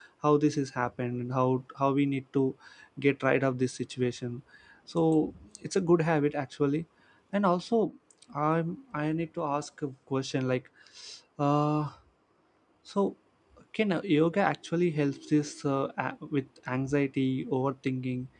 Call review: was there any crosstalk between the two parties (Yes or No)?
No